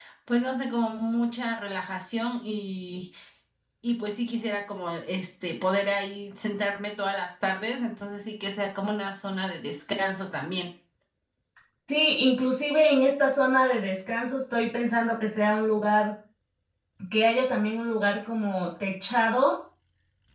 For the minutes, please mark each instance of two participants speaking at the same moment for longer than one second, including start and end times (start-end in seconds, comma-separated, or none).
none